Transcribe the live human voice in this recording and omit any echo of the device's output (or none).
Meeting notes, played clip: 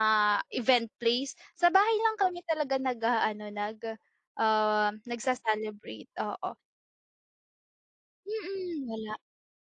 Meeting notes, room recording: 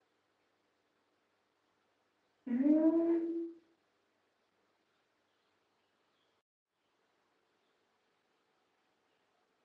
Hmm.